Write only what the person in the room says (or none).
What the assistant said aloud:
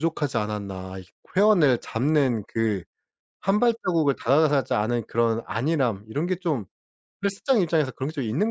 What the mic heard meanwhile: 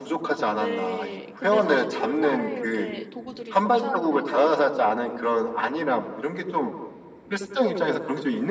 네. 근데 사실 첫날에 이렇게 도구들이 도착을 해서